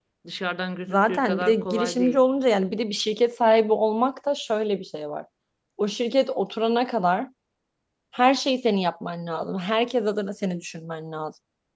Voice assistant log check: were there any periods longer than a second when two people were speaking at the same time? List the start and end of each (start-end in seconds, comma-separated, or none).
0.9-2.2